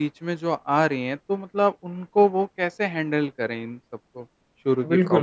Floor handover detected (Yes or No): Yes